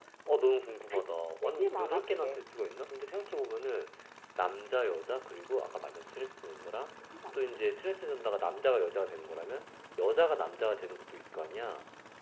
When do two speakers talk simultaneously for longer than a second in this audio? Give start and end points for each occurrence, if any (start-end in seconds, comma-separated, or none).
0.9-2.5